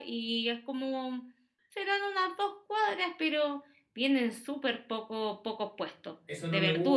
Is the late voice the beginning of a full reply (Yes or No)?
Yes